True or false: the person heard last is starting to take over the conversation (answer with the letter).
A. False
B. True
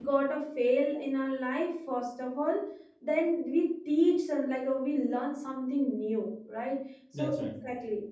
A